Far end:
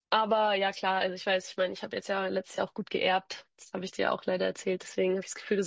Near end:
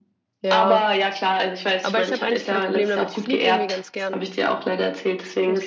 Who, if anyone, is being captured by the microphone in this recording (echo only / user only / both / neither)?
both